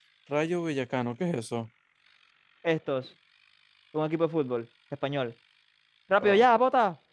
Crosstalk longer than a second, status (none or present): none